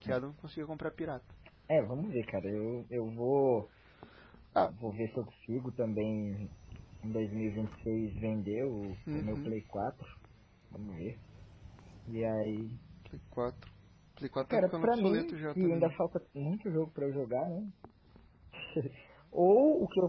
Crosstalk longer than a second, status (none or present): present